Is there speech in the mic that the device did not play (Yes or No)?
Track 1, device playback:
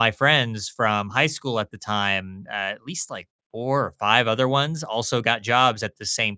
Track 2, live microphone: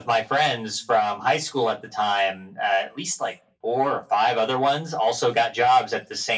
No